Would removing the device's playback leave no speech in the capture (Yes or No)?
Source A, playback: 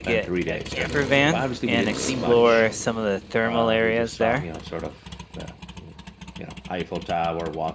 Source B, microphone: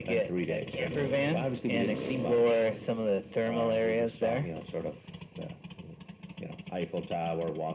Yes